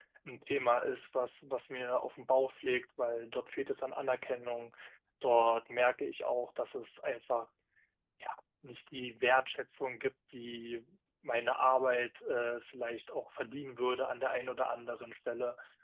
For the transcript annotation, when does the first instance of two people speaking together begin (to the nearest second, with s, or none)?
none